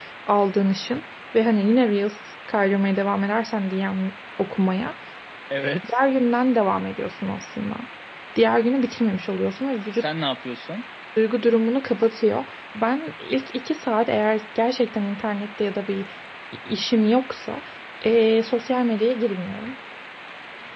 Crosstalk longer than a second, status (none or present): none